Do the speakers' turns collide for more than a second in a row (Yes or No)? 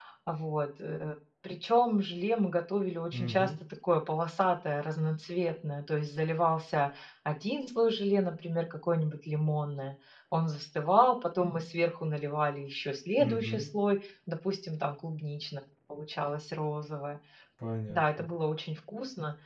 No